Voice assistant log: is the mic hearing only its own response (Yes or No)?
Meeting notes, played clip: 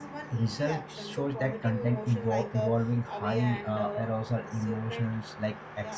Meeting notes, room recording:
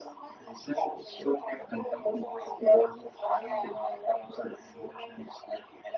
Yes